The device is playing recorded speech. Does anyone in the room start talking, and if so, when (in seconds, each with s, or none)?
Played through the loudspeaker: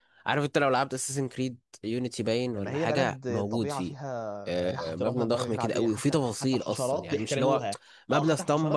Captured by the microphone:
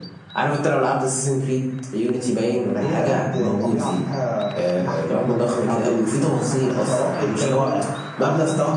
none